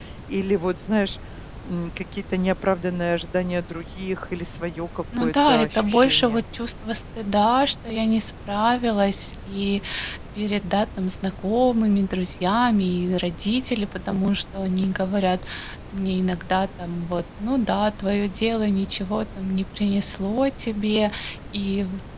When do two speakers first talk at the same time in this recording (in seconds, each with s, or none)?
5.1 s